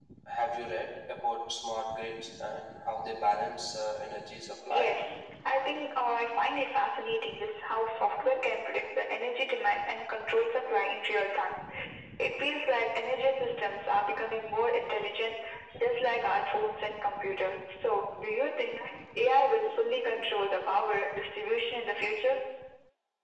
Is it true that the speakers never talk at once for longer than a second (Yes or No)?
Yes